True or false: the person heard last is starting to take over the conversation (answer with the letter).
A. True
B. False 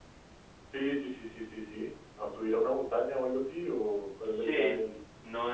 A